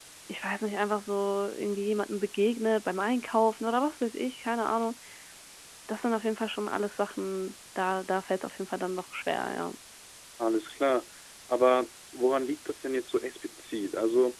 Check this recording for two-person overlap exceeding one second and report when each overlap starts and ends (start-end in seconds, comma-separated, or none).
none